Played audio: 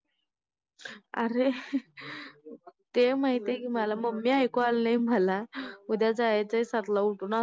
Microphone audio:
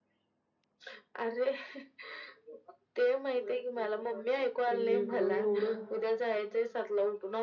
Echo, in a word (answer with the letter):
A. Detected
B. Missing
A